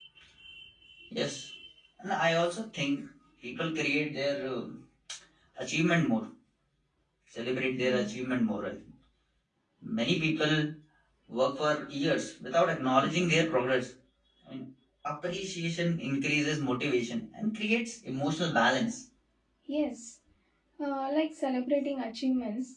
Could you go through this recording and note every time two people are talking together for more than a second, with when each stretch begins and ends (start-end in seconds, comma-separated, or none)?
none